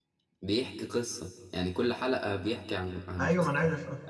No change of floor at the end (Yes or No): No